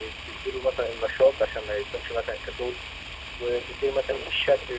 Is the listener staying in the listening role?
Yes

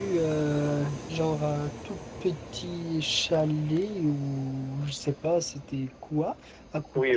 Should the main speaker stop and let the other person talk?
Yes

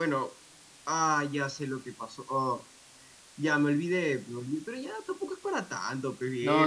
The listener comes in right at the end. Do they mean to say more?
Yes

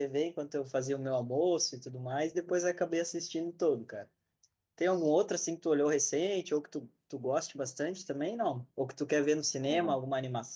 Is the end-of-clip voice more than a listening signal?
No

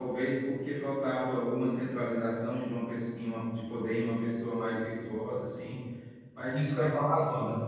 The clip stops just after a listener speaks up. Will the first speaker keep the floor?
No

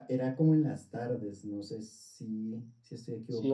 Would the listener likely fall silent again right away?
No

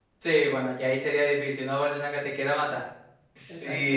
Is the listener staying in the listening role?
No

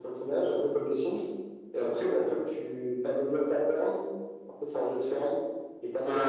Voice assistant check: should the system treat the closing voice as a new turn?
No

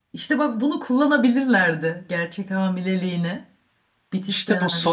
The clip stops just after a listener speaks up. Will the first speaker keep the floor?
No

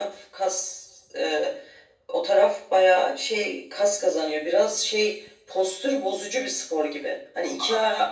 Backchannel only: Yes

